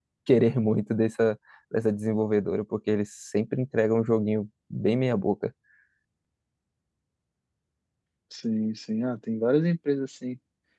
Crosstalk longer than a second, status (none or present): none